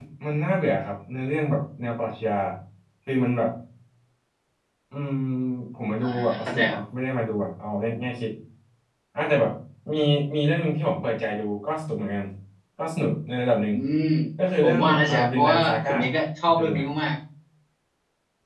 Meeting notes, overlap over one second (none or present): present